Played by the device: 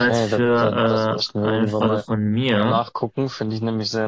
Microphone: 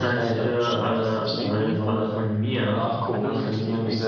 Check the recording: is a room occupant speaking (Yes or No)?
Yes